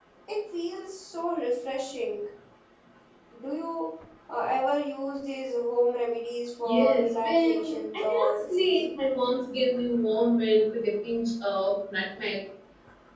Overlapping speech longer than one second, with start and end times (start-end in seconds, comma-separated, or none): 6.6-8.8